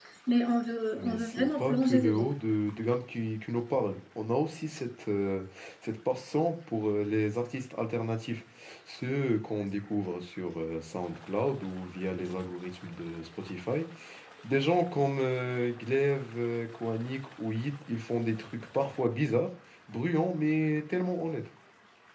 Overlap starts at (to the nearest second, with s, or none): 1 s